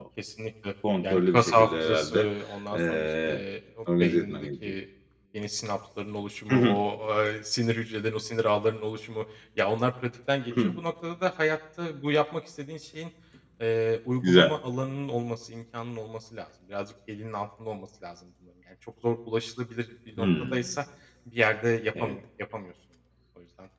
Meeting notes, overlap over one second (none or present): present